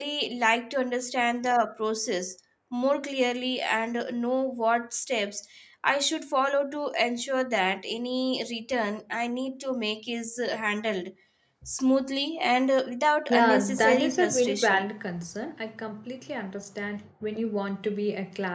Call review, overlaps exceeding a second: present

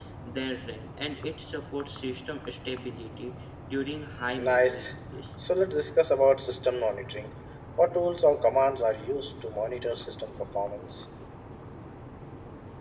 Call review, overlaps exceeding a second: none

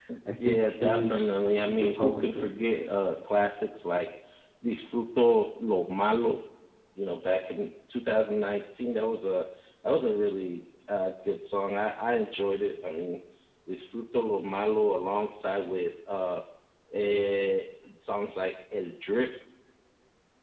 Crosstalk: present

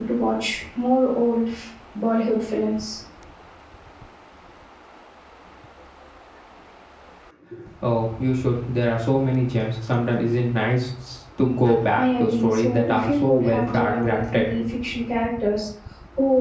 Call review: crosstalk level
present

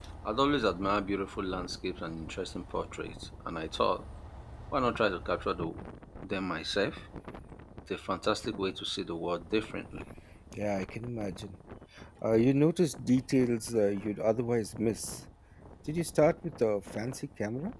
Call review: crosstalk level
none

